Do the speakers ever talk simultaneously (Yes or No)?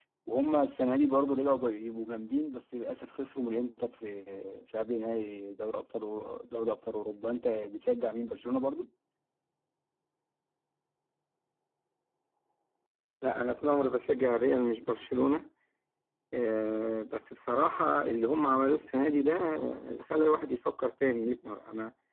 No